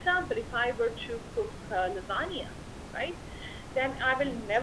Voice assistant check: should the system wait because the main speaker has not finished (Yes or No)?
Yes